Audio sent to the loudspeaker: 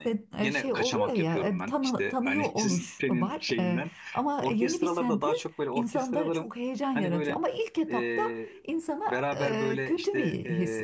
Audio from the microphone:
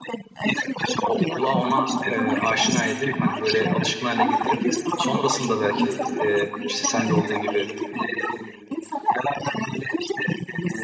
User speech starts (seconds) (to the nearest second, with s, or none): 1 s